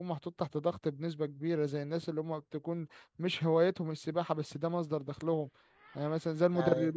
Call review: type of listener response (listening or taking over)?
listening